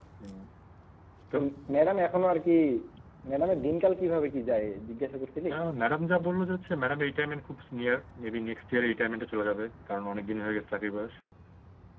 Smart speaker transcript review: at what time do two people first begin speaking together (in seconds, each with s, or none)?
none